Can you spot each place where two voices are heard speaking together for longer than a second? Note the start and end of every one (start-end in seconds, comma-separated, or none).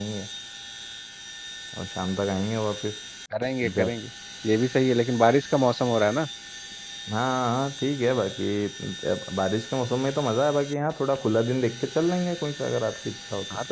none